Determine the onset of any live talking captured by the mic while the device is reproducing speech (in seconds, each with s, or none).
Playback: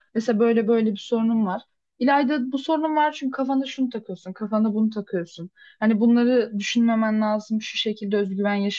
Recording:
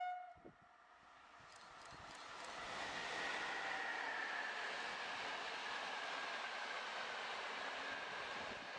none